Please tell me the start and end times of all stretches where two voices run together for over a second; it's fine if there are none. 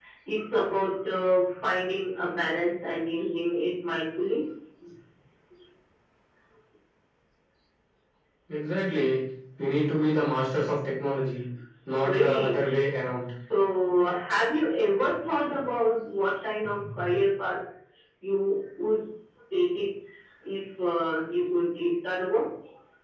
12.0-13.2

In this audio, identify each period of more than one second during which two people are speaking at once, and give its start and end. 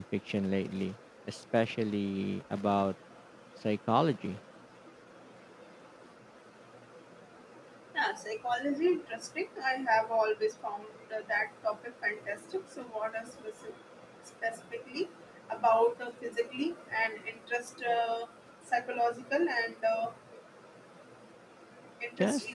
none

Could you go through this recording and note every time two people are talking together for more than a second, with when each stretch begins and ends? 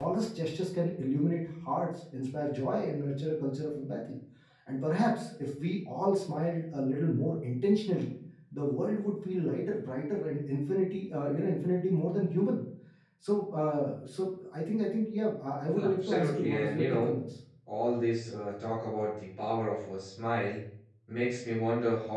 15.8-17.1

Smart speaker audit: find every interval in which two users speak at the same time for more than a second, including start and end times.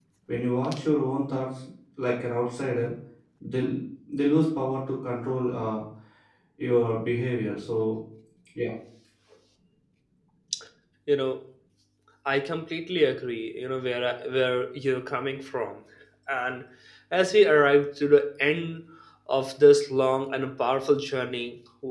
none

